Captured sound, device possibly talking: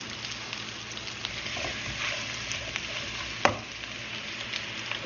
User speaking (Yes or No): No